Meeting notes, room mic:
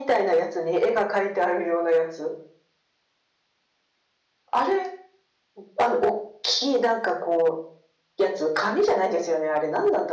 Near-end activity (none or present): none